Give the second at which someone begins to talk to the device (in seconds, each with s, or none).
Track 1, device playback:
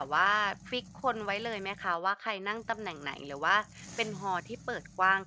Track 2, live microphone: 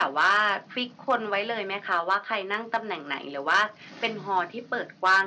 none